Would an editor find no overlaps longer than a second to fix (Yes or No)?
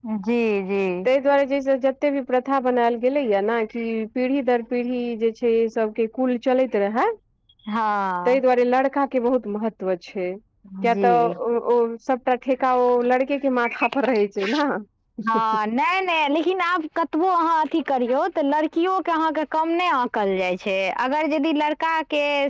Yes